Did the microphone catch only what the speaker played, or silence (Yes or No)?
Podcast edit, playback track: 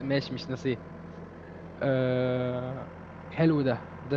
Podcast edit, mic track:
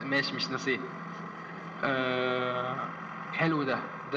Yes